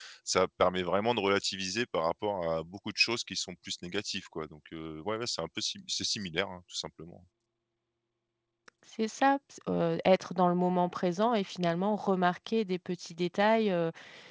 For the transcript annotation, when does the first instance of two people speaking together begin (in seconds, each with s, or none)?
none